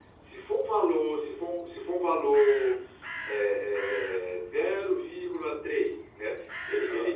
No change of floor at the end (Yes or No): Yes